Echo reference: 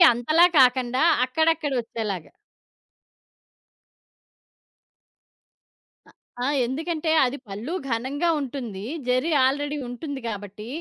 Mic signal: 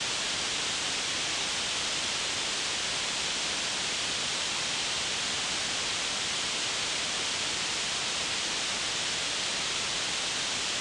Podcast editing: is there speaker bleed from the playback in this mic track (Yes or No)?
No